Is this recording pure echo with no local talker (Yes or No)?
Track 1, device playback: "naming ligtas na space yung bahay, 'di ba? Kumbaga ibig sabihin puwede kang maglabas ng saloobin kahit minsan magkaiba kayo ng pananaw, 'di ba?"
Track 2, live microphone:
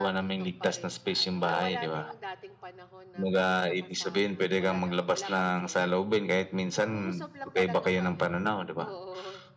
No